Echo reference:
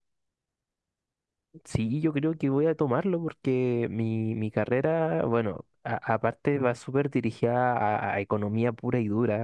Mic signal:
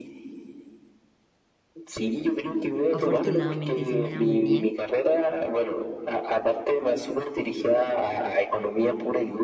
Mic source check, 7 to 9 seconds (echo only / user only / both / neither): echo only